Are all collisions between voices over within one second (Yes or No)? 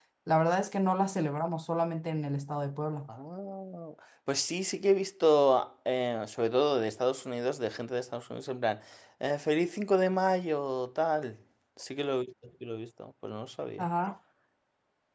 Yes